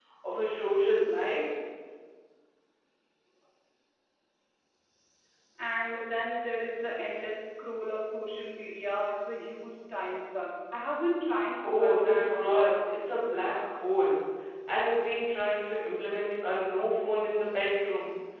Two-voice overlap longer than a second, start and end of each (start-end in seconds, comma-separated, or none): 11.6-13.2